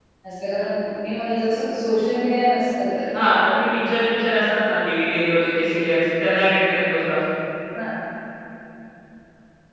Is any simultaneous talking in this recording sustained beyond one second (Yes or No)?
No